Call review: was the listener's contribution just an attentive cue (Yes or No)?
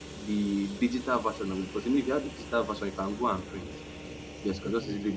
Yes